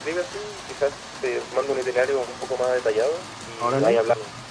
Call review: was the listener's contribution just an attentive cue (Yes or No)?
No